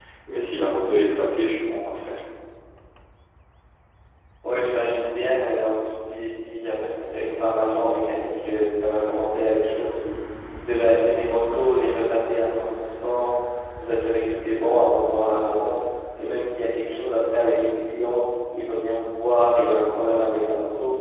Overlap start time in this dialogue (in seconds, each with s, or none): none